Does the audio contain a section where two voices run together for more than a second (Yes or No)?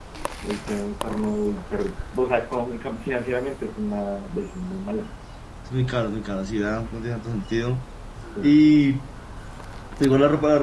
No